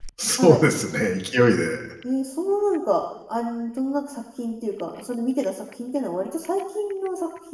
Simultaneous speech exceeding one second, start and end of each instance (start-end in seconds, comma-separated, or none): none